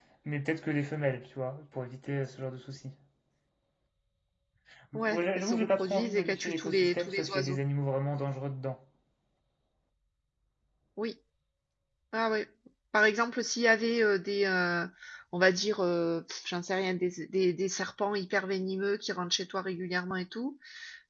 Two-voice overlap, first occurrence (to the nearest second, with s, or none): 5 s